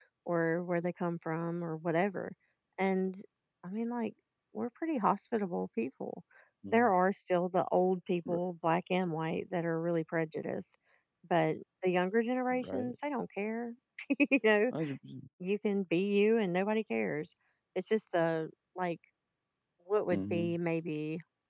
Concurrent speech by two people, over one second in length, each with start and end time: none

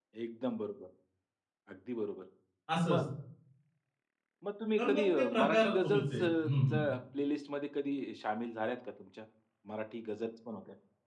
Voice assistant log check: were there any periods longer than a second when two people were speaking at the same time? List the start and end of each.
4.8-6.3

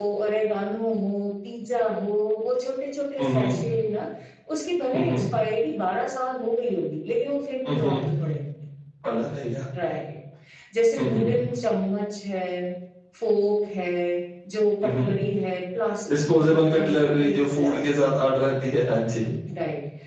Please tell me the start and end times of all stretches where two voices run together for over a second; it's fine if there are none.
16.1-18.1

